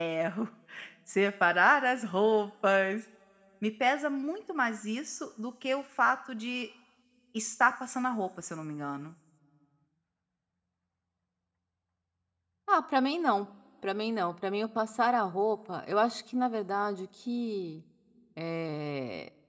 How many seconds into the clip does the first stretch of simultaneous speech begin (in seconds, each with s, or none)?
none